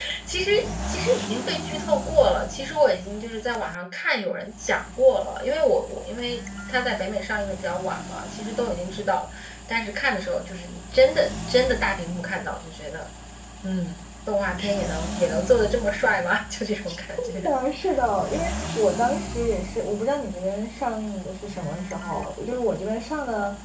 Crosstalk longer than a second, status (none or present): none